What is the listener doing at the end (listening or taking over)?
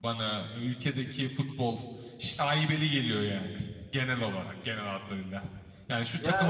listening